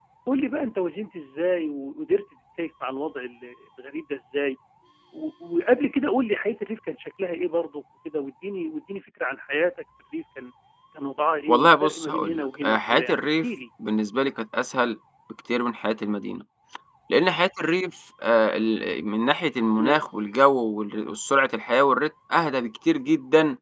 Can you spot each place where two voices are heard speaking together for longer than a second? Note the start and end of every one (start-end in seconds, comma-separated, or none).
11.5-13.4